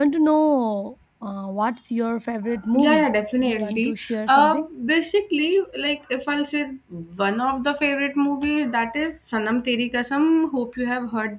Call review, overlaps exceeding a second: present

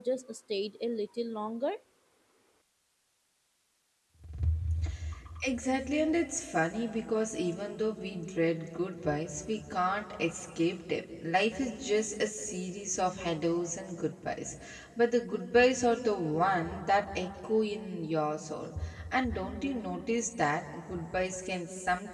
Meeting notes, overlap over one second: none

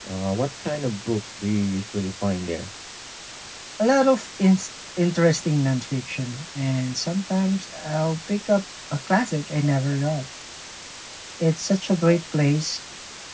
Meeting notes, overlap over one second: none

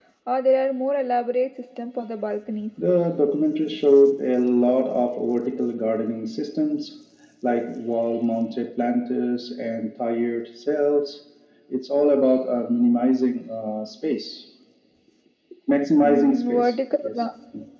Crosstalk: present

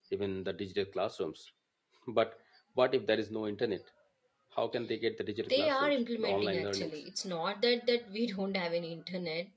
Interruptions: present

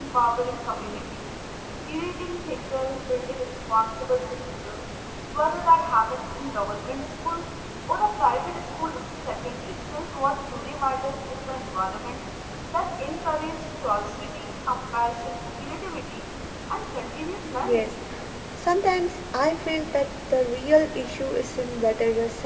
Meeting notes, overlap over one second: none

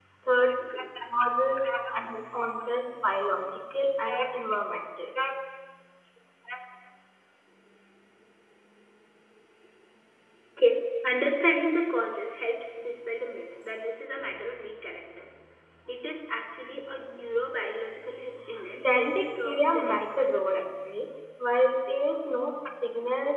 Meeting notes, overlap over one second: present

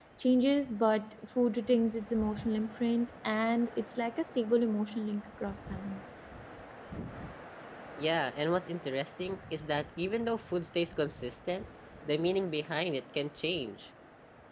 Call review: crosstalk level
none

